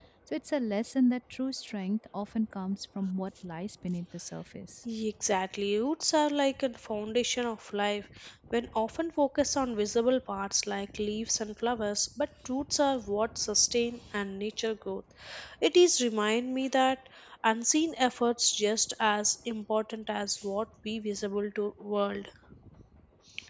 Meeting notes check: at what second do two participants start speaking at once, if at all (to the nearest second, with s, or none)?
none